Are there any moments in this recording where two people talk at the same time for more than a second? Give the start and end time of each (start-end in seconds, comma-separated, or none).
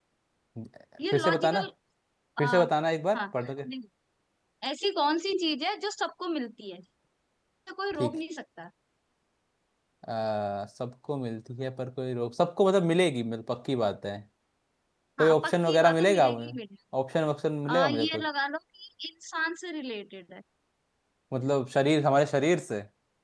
15.2-16.5